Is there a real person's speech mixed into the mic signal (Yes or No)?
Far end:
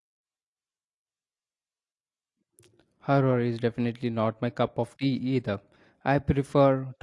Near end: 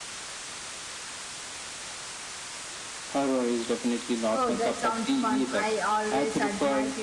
Yes